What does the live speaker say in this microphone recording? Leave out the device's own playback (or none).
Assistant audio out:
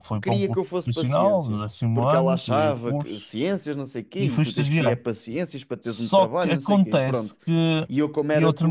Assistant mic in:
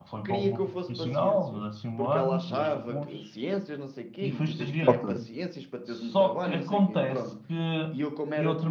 Ok,